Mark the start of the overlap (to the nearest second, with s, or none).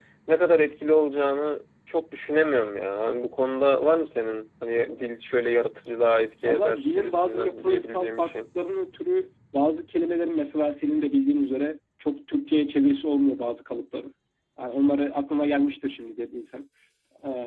6 s